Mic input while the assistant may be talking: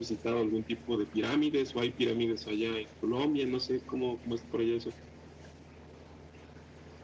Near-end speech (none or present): none